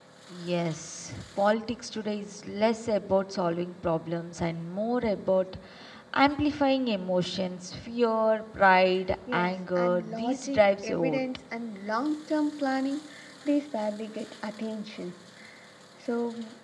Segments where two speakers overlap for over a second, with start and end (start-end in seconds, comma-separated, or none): 9.3-11.2